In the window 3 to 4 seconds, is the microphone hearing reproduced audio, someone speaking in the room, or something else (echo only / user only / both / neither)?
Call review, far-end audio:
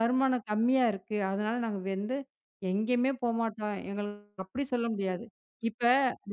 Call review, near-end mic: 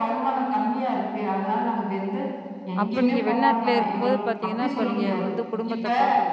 both